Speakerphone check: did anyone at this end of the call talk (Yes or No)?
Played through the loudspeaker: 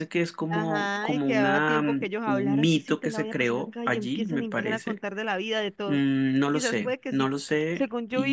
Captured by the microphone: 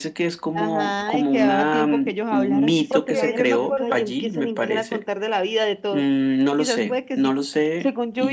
Yes